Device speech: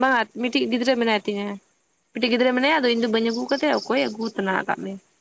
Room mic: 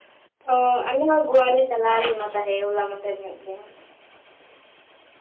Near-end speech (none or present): present